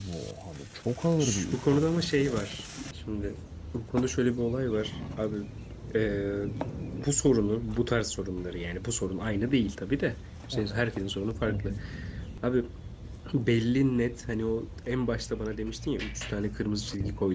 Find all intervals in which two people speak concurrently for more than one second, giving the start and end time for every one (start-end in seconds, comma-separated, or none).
1.2-2.6